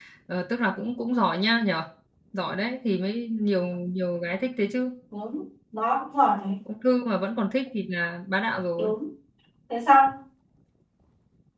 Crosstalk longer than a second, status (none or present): none